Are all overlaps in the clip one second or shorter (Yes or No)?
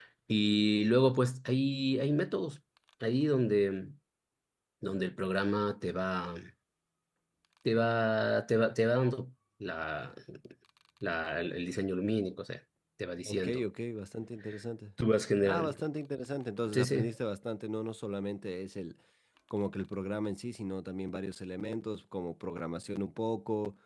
Yes